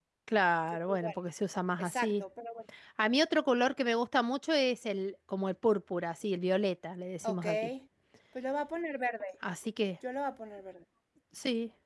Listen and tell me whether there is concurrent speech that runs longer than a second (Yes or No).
No